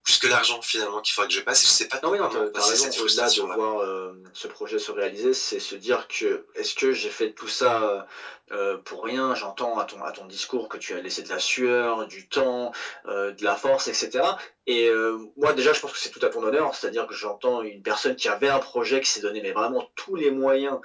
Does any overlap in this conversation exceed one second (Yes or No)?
Yes